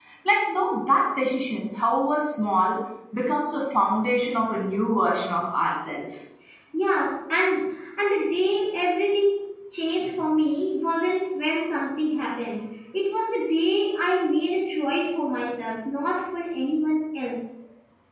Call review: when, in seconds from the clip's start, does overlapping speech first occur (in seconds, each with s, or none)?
none